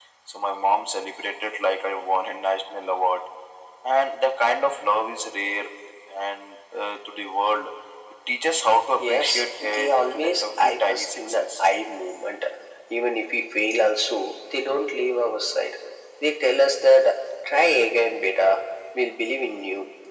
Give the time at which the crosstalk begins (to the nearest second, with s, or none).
9 s